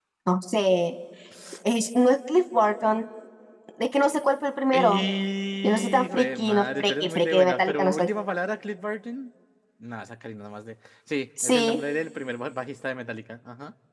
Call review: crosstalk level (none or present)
present